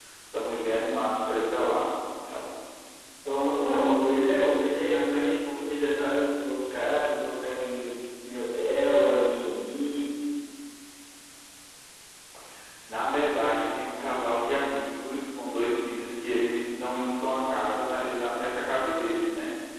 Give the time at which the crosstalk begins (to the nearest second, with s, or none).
none